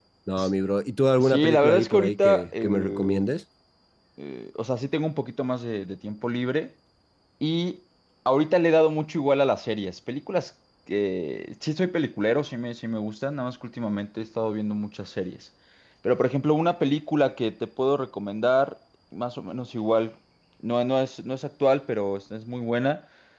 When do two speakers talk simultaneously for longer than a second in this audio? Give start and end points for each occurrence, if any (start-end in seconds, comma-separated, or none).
1.2-3.3